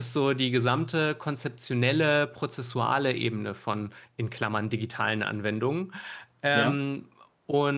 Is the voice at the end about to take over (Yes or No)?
No